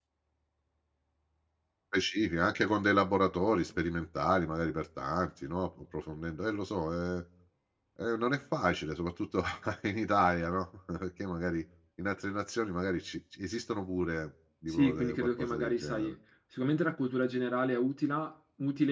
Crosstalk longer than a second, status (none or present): present